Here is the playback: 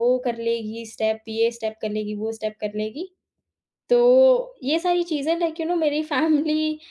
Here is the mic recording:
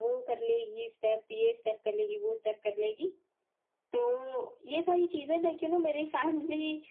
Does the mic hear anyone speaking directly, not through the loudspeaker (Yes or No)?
No